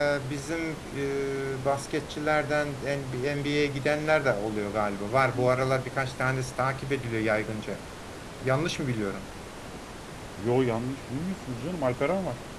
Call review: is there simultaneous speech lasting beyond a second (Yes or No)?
No